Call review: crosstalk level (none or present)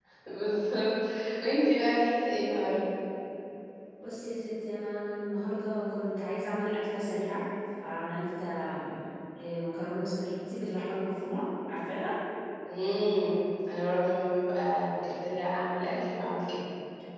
none